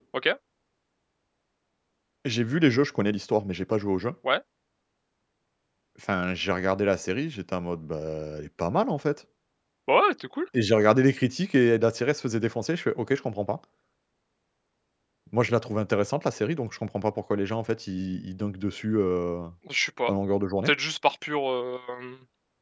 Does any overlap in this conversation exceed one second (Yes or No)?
No